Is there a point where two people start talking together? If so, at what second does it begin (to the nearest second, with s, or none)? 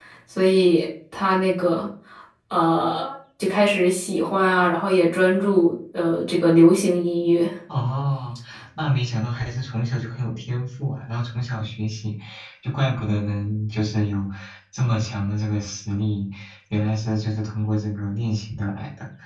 none